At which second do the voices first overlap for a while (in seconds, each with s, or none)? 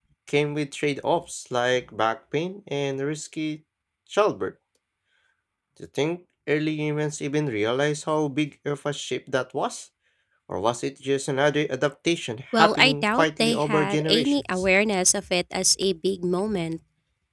12.5 s